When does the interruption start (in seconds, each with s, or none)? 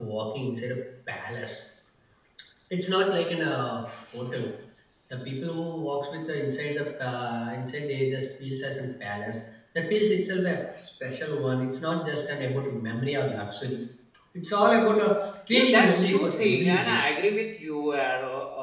15.5 s